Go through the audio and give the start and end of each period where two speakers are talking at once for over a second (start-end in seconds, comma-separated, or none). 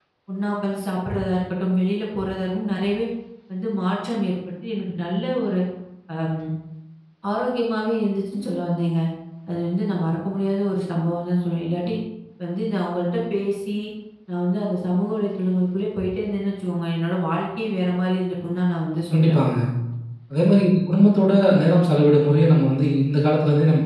none